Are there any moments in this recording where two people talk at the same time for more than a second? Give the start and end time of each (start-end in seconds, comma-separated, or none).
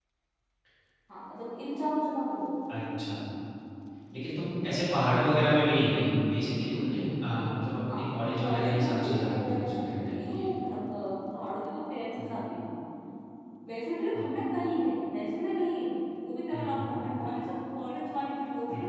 7.9-10.5